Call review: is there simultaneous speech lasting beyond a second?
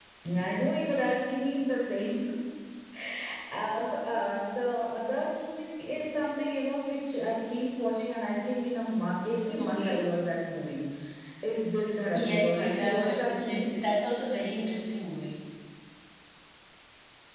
Yes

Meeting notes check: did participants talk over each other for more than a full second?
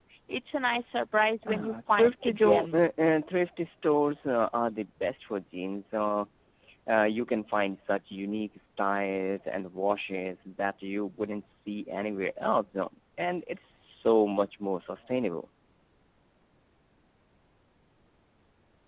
Yes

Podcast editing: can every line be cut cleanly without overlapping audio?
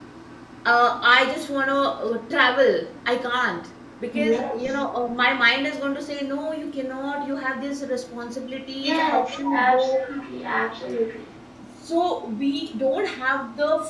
No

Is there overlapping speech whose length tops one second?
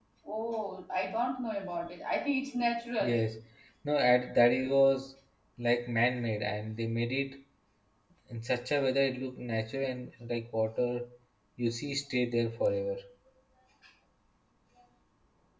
No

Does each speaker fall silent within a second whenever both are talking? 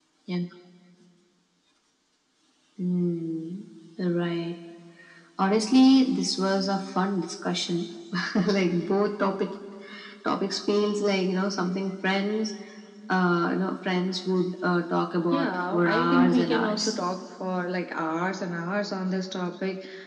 No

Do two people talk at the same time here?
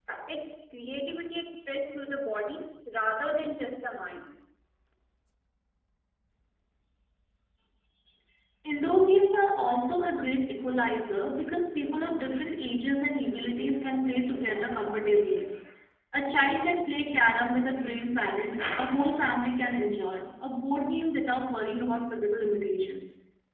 No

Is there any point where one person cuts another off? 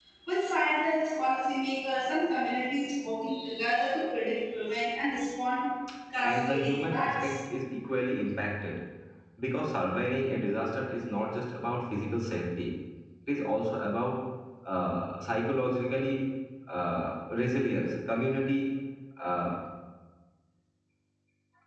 Yes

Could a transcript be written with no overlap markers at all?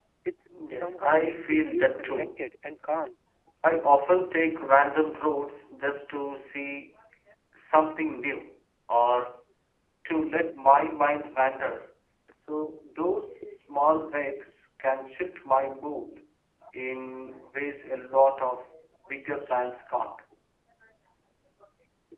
No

